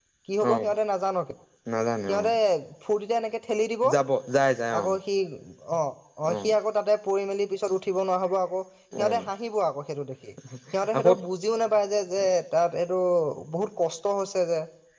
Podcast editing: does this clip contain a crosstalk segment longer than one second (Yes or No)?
No